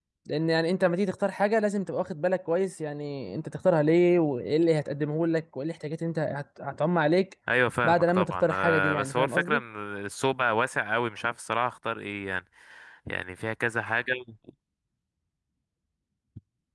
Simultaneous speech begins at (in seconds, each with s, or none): 7.8 s